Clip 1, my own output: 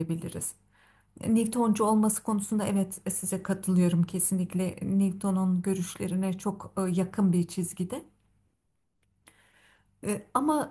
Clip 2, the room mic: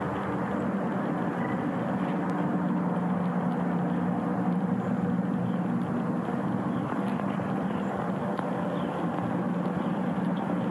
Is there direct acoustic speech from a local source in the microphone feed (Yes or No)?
No